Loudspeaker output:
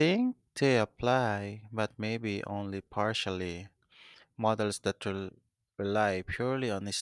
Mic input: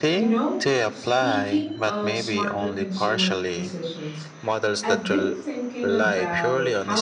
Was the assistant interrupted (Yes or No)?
Yes